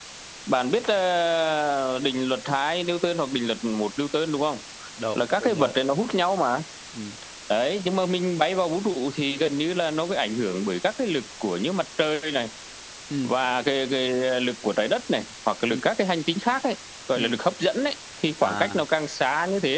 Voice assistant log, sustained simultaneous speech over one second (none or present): none